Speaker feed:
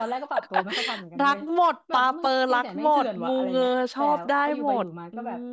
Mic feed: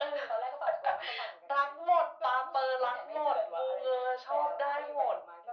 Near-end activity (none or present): none